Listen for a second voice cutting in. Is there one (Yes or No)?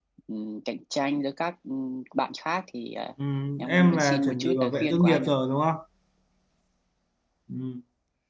Yes